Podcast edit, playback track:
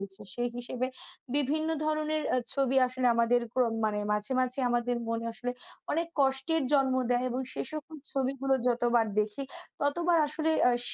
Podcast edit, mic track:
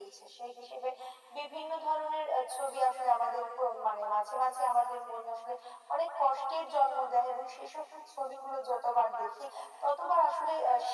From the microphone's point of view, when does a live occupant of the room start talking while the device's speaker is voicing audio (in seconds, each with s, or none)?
none